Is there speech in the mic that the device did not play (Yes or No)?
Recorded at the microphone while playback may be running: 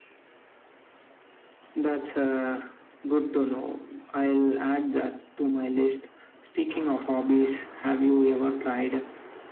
No